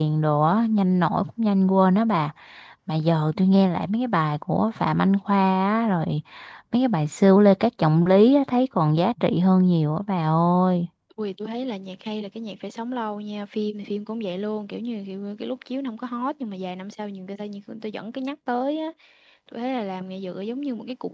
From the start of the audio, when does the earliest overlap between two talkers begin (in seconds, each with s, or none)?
none